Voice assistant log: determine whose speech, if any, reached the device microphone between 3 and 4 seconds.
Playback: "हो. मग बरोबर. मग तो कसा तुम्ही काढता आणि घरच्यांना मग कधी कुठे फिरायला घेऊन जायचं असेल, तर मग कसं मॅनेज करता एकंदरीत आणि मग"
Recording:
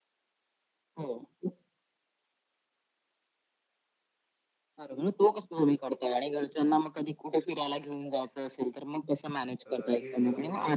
neither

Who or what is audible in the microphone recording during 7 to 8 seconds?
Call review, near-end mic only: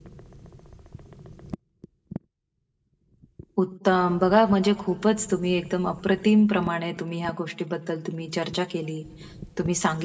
user only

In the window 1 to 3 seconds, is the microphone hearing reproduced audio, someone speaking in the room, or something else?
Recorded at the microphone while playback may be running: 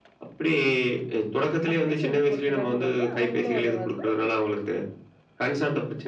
both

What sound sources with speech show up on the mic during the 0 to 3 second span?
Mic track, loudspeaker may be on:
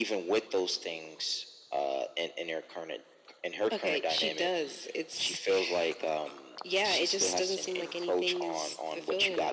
echo only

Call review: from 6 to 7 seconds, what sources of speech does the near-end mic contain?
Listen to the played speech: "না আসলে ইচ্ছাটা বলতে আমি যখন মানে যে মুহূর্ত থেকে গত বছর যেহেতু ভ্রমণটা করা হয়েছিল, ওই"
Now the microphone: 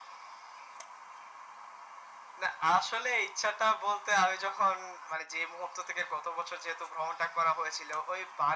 echo only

